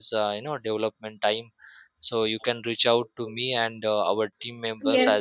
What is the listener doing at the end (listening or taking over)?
listening